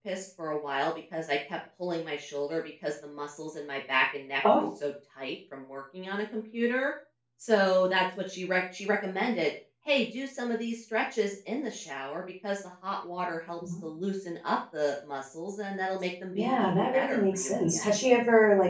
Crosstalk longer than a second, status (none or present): present